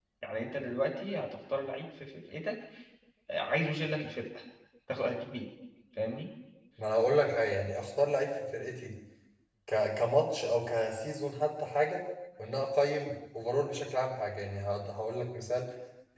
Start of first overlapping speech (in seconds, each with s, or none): none